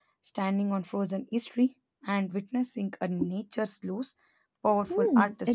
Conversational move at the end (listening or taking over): taking over